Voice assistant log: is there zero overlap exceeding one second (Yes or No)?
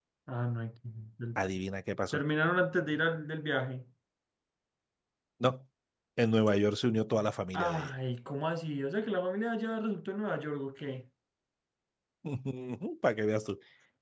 Yes